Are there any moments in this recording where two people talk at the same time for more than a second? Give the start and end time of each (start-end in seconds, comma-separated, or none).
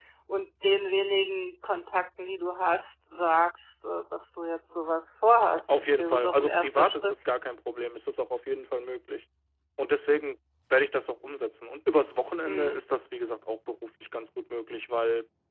5.7-7.2